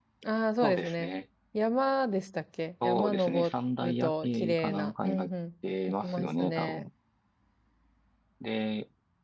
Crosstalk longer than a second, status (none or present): present